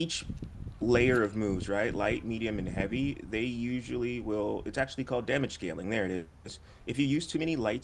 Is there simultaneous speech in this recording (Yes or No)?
No